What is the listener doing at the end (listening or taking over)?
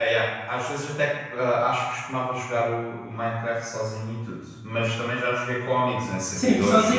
taking over